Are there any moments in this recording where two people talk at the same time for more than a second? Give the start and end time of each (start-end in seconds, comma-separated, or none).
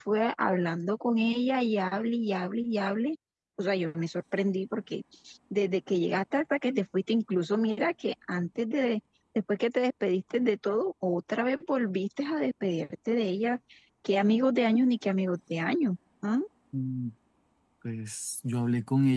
none